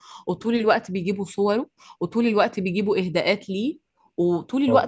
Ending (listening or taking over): listening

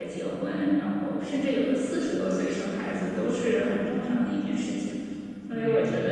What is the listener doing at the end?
listening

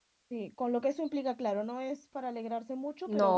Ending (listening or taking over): listening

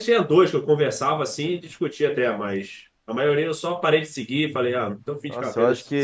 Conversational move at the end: taking over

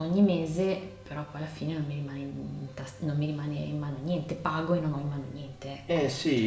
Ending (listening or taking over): taking over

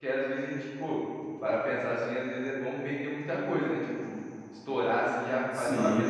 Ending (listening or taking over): listening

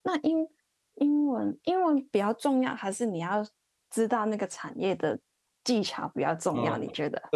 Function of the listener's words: taking over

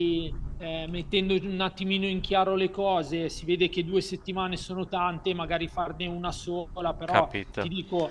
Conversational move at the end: listening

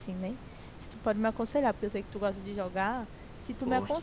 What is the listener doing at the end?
listening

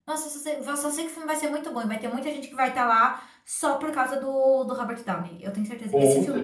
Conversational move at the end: listening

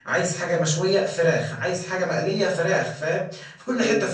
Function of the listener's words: listening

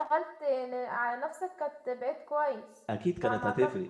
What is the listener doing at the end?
taking over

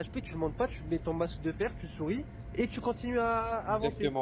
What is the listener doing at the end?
taking over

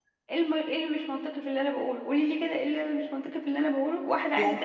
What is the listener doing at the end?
listening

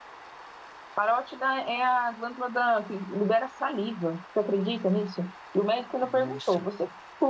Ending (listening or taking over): listening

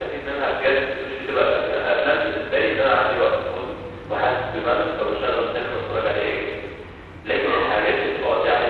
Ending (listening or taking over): listening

